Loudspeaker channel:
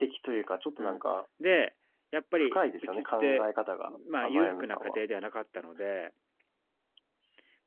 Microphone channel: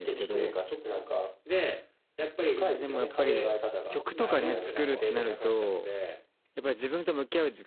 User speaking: Yes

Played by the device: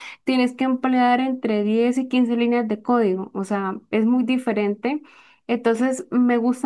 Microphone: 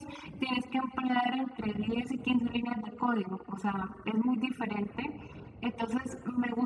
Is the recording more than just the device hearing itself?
No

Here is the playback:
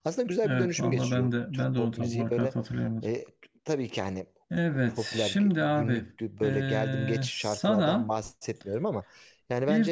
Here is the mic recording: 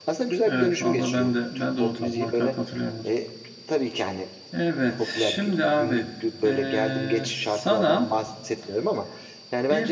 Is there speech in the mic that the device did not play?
No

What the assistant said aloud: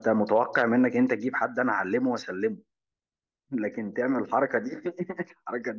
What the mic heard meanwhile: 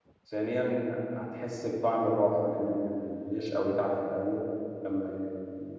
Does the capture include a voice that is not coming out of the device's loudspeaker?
Yes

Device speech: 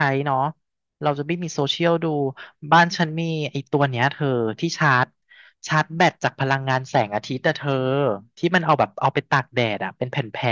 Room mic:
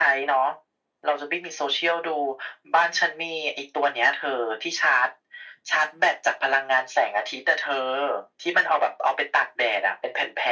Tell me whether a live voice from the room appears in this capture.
No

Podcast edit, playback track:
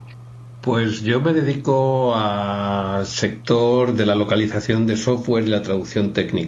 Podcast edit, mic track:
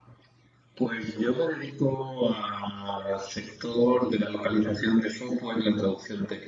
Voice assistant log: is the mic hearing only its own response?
Yes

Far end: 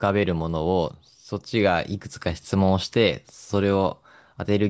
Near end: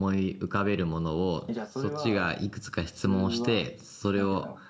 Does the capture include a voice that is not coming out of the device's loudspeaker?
Yes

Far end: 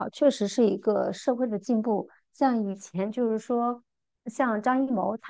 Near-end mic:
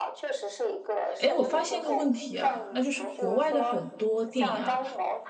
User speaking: Yes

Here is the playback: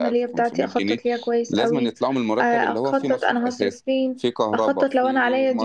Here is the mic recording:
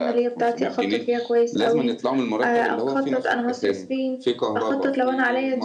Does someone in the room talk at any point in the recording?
Yes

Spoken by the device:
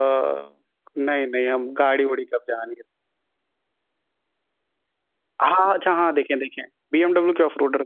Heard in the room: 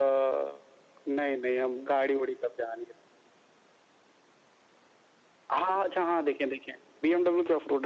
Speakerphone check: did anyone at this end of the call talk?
No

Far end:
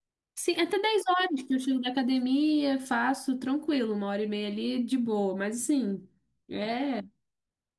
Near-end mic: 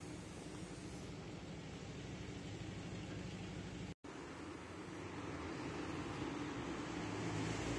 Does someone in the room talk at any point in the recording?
No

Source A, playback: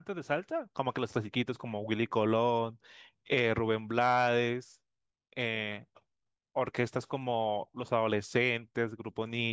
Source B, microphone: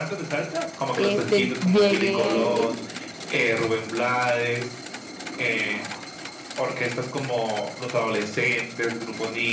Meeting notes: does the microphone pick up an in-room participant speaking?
Yes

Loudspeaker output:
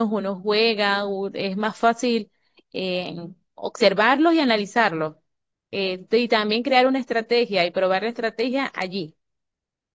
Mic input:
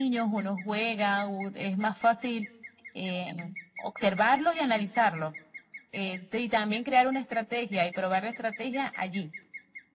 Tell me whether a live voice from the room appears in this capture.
No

